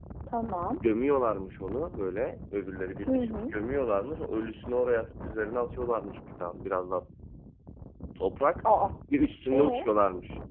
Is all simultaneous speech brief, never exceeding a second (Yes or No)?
Yes